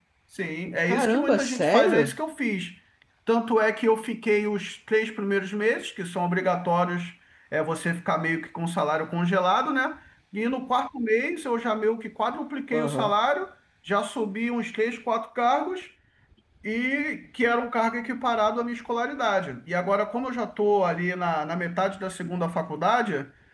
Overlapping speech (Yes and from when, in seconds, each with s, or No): Yes, from 0.8 s